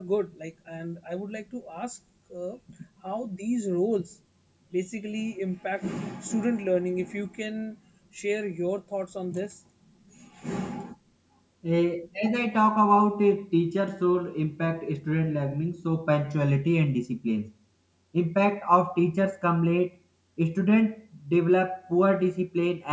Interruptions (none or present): none